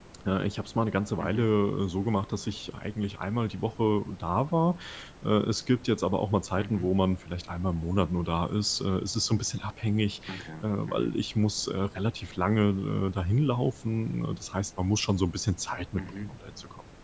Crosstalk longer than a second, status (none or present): none